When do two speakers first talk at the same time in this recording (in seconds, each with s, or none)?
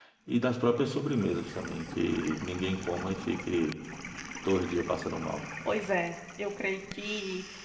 none